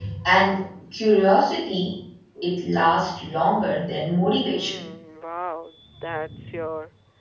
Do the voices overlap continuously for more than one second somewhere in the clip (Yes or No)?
No